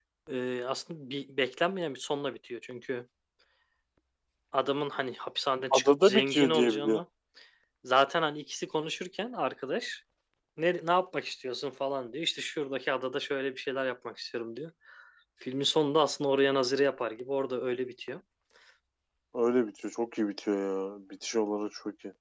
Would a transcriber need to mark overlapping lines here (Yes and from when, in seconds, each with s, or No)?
Yes, from 5.7 s